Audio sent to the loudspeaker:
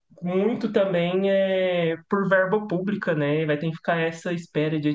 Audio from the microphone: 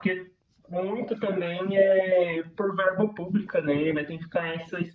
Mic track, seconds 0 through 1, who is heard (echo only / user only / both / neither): echo only